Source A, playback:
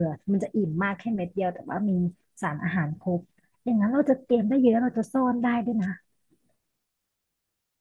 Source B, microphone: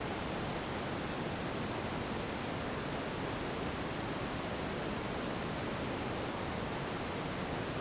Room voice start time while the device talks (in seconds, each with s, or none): none